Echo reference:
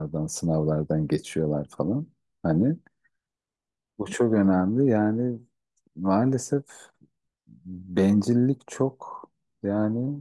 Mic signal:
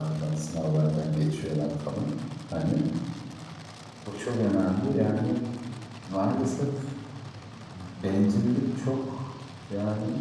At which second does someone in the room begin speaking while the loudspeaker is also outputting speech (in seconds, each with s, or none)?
none